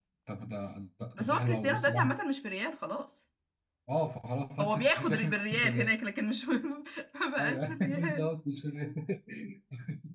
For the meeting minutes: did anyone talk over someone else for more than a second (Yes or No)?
Yes